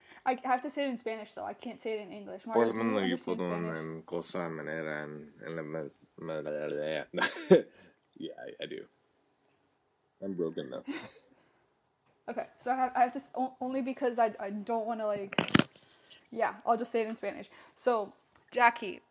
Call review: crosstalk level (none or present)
present